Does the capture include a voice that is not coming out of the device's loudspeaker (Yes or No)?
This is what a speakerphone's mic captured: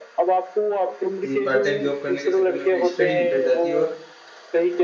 Yes